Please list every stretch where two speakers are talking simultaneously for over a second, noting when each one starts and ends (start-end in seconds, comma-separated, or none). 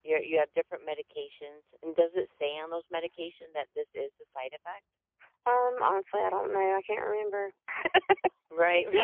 none